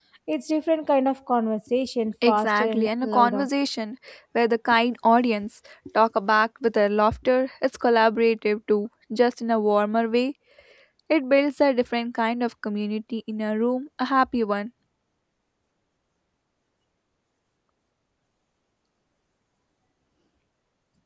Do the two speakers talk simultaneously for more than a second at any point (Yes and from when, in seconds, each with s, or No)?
Yes, from 2.2 s